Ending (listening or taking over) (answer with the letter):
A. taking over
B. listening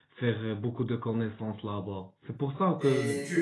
A